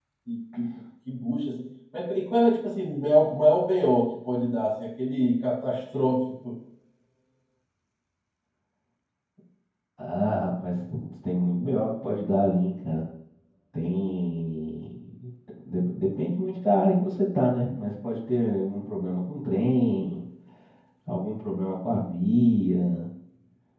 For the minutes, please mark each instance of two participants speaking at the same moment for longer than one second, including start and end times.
none

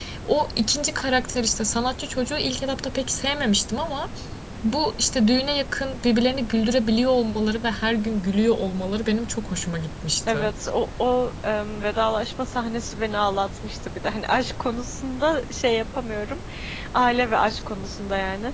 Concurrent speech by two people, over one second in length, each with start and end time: none

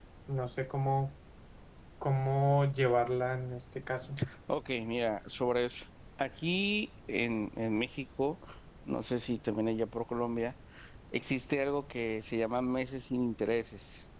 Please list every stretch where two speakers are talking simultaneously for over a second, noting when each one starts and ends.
none

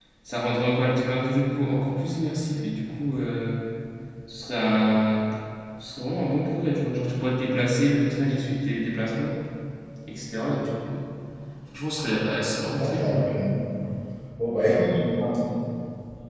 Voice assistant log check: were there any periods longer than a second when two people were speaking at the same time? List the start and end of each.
none

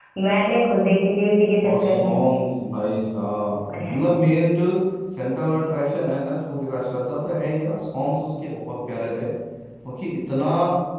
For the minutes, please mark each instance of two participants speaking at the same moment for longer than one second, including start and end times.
none

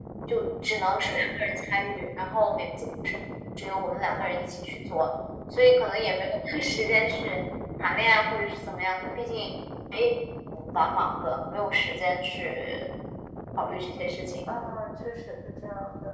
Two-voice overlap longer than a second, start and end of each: none

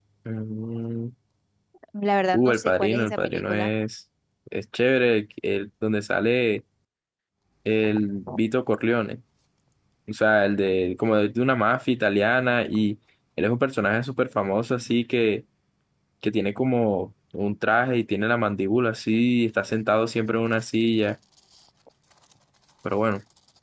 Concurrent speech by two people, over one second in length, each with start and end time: 2.3-3.7

